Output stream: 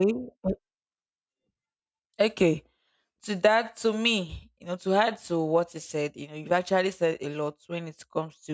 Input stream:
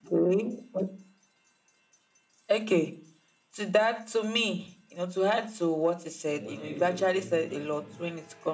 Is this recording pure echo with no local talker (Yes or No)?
No